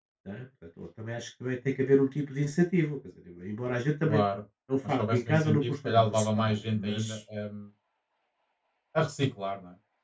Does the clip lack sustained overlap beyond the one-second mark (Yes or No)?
No